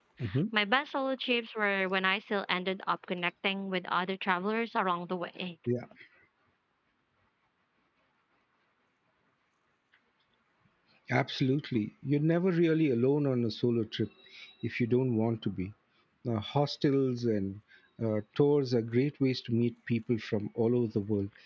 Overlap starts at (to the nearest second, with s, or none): none